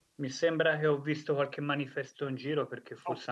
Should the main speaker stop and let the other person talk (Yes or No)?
No